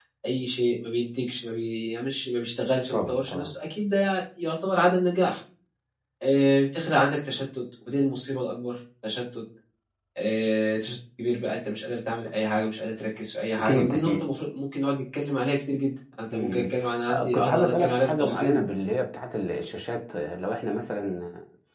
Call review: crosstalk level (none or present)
present